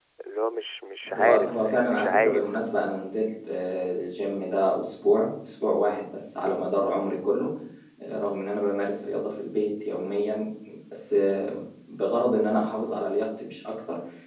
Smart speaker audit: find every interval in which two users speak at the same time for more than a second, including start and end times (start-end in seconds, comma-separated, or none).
1.1-2.6